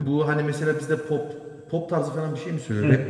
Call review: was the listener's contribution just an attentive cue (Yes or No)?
No